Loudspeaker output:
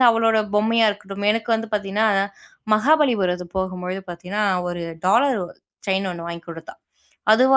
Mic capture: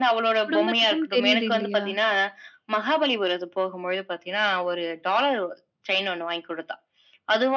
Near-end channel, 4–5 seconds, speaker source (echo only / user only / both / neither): echo only